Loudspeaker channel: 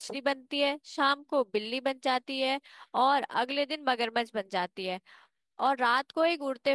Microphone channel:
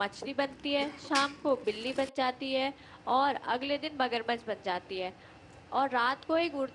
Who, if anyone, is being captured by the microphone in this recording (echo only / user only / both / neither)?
echo only